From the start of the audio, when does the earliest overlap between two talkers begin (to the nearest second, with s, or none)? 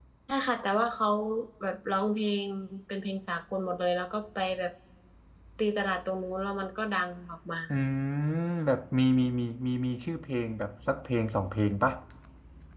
none